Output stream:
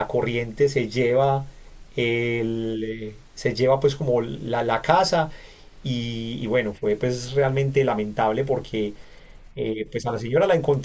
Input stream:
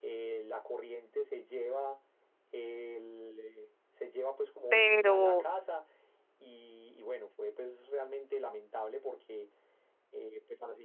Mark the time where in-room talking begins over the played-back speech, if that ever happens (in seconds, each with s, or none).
4.7 s